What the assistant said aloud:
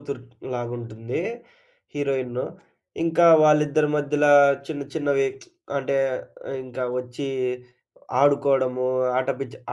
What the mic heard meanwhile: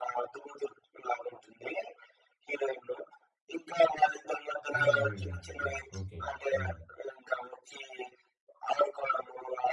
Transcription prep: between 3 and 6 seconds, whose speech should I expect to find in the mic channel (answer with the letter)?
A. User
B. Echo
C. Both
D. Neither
C